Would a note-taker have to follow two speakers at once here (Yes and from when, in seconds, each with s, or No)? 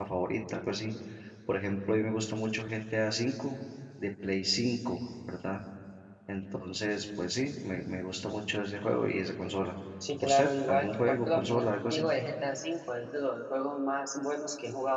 Yes, from 10.2 s